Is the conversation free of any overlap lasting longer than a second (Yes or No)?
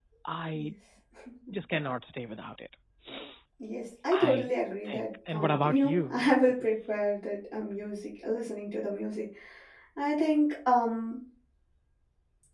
No